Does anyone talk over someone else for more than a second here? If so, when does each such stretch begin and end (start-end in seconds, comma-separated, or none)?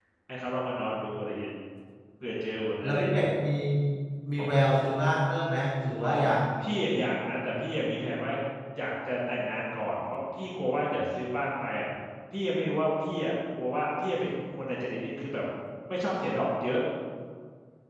none